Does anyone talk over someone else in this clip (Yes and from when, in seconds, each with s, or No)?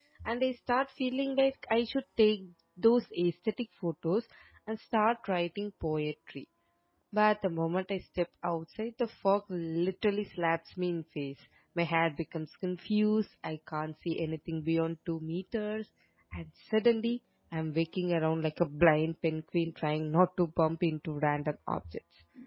No